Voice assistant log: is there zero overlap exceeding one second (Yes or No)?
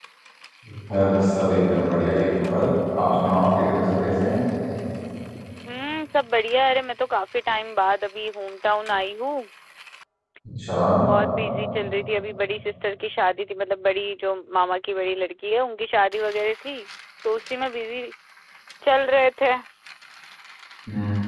Yes